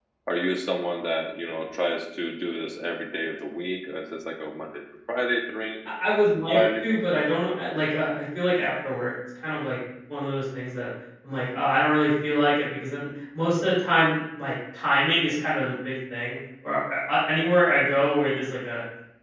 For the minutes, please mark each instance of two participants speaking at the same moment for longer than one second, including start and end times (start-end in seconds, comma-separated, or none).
none